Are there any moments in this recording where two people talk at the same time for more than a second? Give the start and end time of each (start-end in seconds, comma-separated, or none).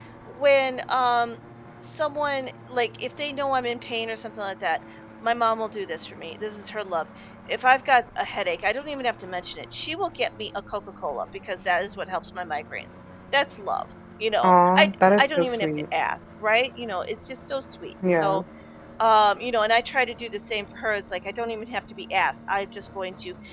14.4-15.7